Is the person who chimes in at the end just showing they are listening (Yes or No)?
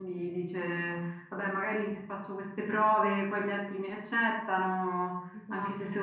Yes